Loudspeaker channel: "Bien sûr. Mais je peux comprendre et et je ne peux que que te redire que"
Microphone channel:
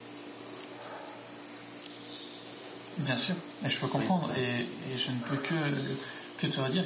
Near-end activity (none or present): present